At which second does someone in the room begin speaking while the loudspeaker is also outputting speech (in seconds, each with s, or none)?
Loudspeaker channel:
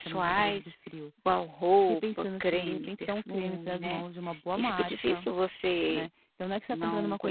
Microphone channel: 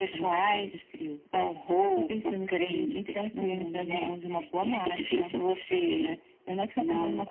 none